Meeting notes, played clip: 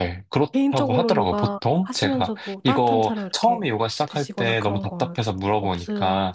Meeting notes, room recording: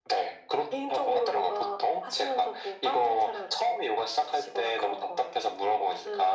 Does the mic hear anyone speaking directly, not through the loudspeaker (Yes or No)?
No